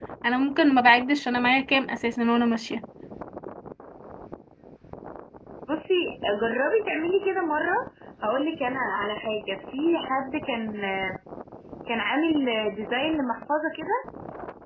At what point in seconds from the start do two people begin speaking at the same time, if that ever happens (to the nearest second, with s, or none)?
none